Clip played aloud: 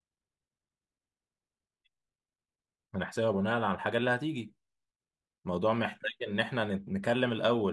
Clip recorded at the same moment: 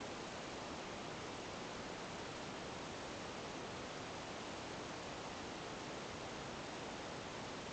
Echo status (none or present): none